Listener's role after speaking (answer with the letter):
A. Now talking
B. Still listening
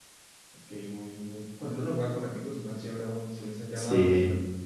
A